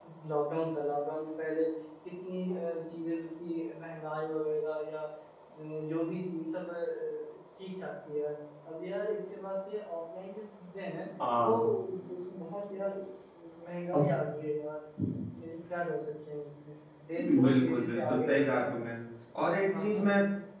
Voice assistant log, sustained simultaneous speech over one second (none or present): present